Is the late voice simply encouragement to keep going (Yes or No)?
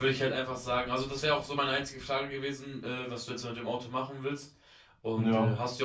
Yes